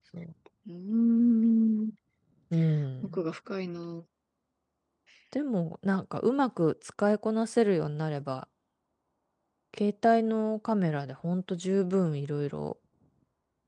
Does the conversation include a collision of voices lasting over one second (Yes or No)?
No